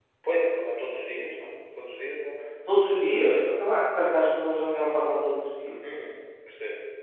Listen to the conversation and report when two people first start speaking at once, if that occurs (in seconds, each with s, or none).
none